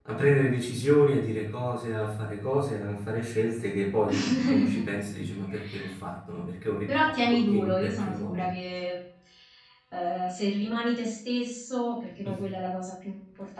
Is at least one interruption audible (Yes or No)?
Yes